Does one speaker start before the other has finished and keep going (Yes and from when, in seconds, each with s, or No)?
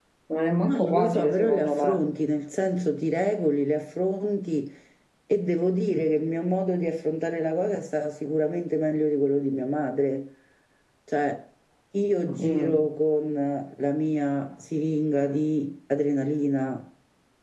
Yes, from 0.6 s